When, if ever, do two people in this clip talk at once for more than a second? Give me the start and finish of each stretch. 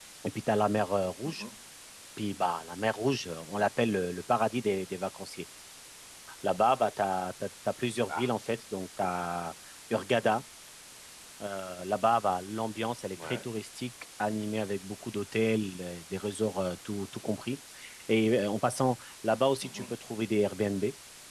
none

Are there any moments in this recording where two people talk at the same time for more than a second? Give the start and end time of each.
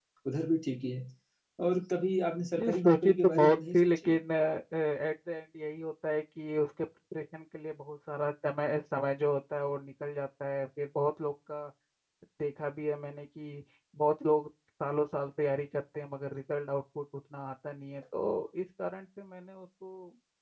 2.6-4.2

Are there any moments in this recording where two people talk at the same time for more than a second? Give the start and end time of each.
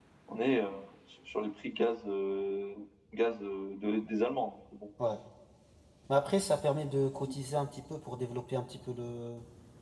none

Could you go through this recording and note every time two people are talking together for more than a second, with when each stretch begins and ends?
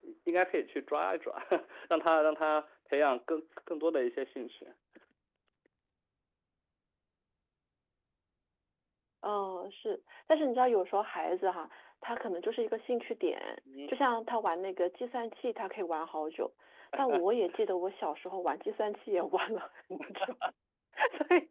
none

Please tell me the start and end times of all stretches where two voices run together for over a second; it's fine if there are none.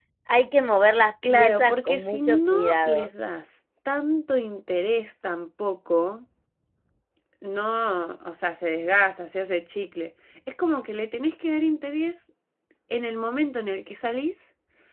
1.3-3.1

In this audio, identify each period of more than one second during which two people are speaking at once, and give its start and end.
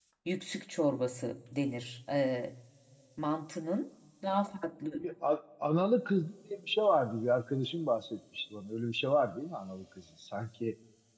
none

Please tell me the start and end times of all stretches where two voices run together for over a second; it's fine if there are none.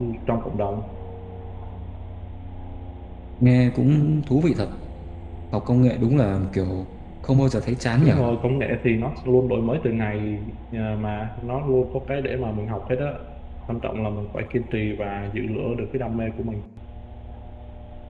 none

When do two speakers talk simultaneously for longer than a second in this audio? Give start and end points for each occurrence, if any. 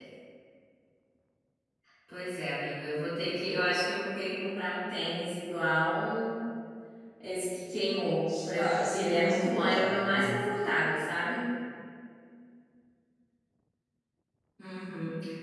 8.5-10.3

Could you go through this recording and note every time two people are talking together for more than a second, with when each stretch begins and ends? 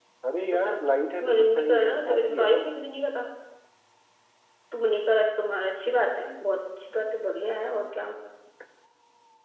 1.3-2.6

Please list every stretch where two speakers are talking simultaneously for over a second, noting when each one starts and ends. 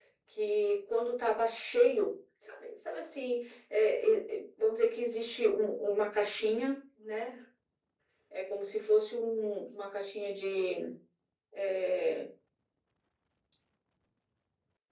none

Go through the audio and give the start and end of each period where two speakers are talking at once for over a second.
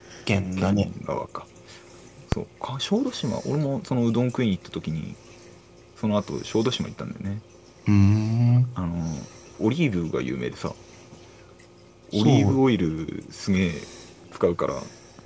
none

